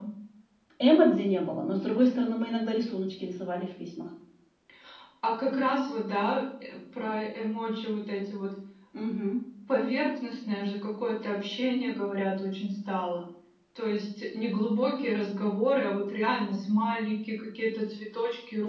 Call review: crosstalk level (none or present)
none